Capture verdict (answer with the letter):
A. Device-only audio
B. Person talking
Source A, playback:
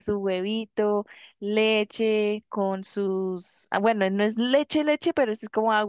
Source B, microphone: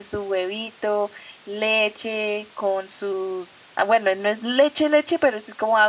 A